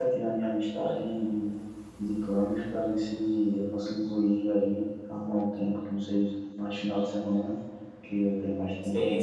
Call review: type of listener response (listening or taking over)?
taking over